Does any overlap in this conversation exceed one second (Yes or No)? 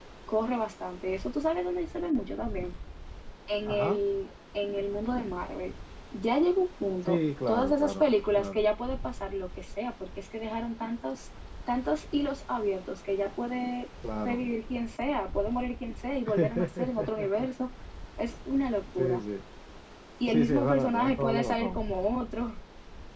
Yes